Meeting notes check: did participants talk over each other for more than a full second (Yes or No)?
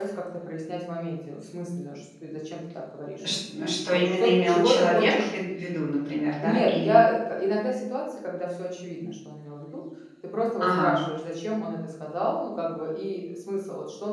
Yes